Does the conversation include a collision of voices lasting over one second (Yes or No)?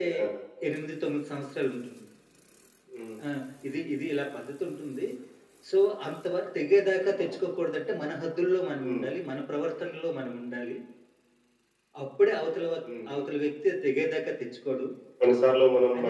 No